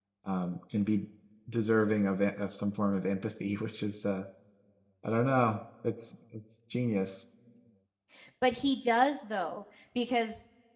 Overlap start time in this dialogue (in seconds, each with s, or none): none